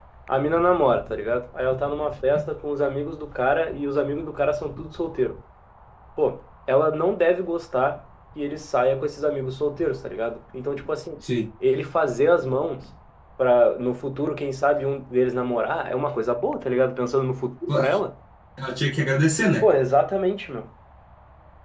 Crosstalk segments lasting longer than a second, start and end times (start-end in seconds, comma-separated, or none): none